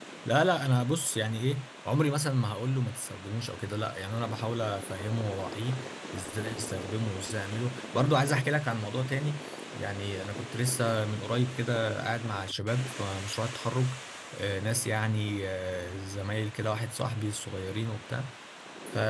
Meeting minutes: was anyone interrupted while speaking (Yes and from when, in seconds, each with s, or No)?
No